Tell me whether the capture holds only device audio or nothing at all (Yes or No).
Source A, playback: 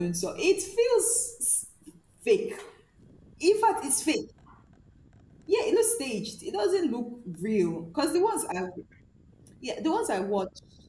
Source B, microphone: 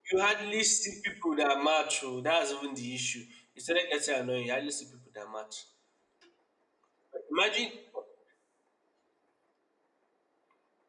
No